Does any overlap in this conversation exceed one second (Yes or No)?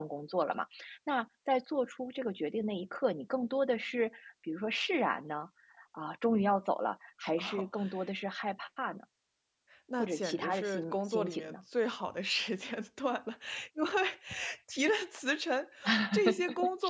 Yes